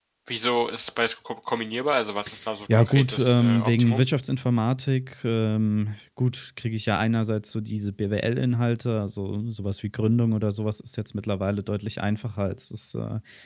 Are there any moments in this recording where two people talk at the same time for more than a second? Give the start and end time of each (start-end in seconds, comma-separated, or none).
2.7-4.1